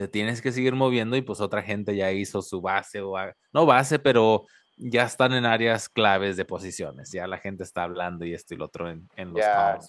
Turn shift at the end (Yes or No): Yes